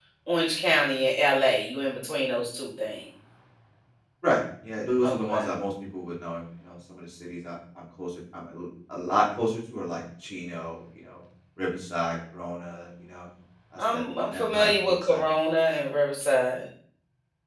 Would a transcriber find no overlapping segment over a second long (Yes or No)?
No